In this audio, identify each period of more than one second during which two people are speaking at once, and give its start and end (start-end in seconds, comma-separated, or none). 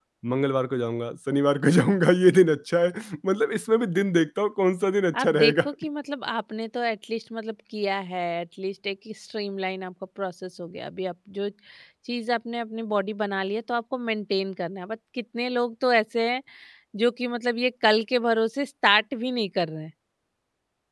none